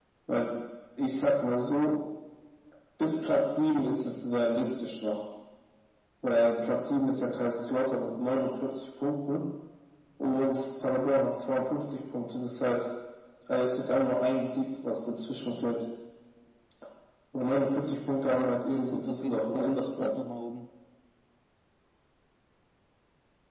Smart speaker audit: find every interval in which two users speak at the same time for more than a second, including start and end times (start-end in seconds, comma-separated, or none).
18.3-20.1